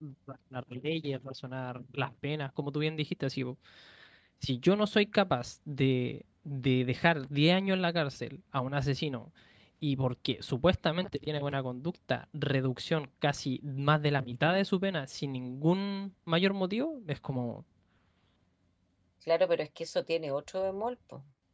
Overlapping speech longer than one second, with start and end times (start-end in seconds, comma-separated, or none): none